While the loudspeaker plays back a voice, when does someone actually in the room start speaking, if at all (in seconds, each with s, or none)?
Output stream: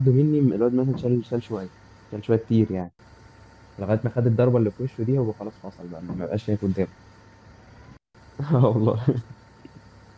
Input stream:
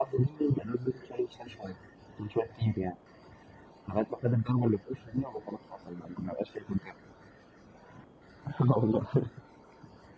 none